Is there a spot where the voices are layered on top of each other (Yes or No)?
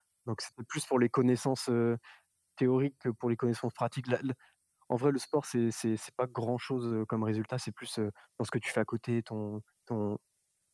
No